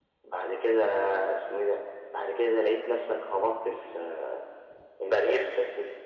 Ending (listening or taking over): listening